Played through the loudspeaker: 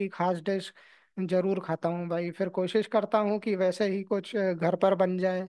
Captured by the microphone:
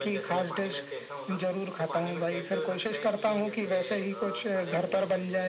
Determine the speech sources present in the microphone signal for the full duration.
both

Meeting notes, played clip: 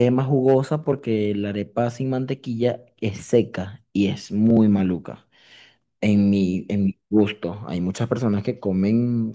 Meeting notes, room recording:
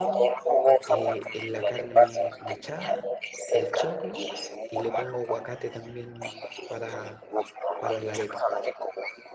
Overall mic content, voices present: both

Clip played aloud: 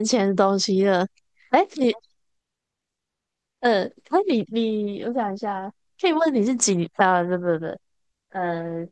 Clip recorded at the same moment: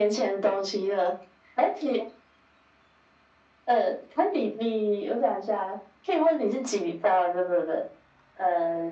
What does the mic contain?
echo only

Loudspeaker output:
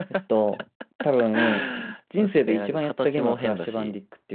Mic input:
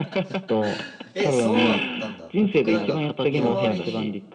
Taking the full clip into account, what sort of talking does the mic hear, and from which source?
both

